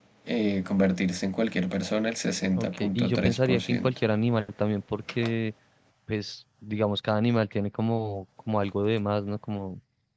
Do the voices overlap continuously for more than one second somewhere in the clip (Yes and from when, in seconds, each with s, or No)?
Yes, from 2.6 s